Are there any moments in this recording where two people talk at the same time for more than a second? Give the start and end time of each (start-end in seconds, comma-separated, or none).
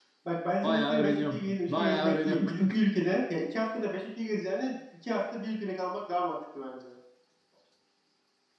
0.6-2.8